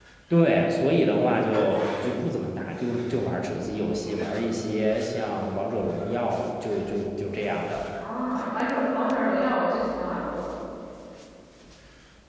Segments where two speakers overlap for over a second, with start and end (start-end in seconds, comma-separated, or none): none